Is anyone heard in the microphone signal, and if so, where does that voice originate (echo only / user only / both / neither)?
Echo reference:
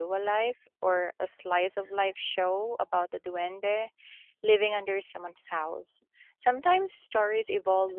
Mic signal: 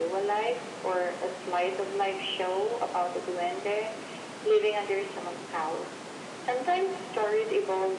echo only